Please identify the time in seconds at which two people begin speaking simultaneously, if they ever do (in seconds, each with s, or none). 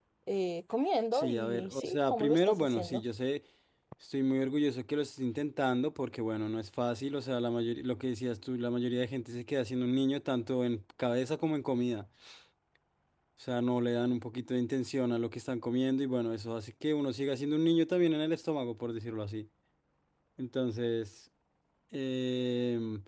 1.1 s